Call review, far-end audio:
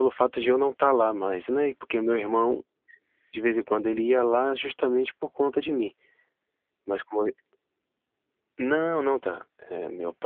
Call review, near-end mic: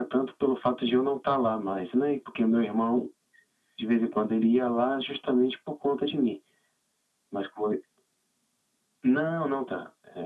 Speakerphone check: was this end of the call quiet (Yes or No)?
Yes